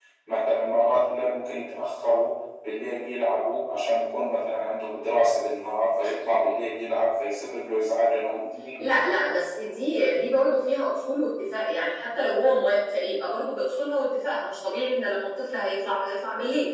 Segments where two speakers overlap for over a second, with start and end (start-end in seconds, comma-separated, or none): none